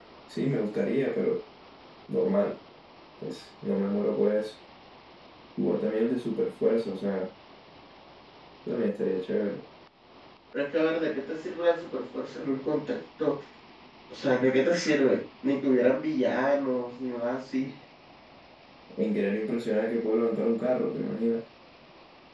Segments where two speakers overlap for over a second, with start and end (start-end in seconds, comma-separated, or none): none